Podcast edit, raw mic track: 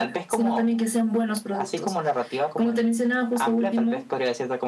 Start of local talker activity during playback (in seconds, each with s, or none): none